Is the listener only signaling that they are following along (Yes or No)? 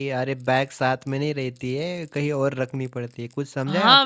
No